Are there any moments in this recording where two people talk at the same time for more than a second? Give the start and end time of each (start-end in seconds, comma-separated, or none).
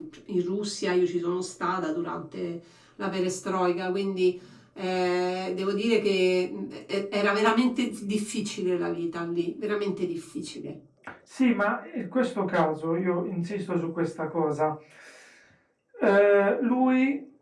none